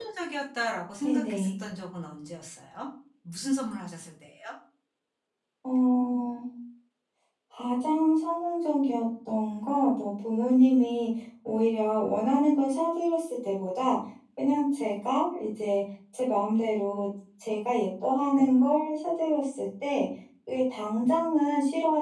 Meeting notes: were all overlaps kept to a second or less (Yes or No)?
Yes